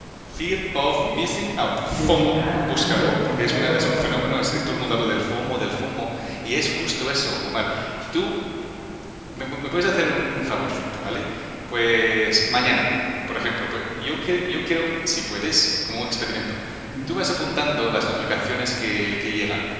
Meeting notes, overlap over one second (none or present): present